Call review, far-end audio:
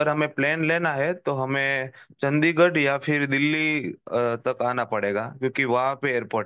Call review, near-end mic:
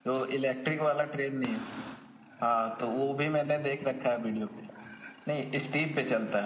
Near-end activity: present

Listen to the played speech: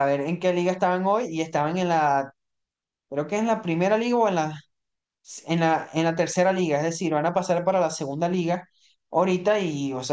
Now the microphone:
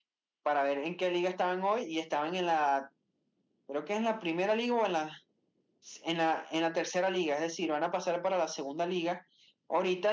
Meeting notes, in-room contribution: none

